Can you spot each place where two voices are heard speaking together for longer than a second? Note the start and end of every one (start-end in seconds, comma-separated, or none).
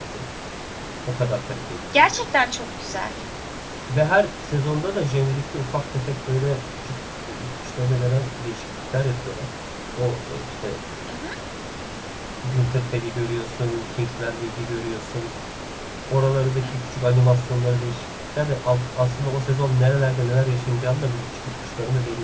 none